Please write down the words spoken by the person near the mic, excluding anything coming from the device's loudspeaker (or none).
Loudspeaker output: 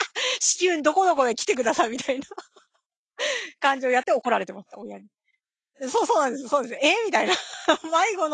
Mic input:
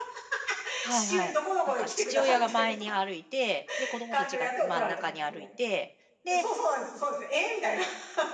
はいはい。なんか父親が前に歩いて、で、子供たちが真ん中に歩いて、で、